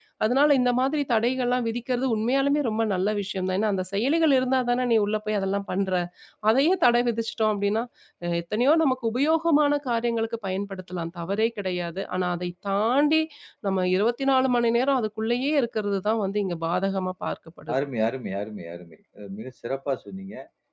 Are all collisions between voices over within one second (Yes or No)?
Yes